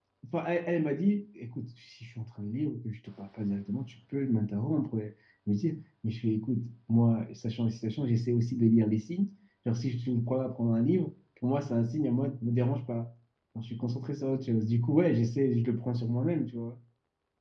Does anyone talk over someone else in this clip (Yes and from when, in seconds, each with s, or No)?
No